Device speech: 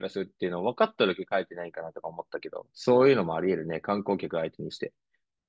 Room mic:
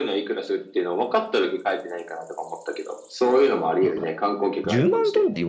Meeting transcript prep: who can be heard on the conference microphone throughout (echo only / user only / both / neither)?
both